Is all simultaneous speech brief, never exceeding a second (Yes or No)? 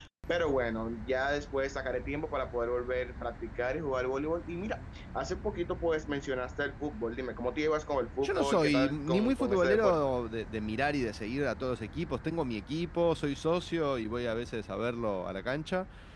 No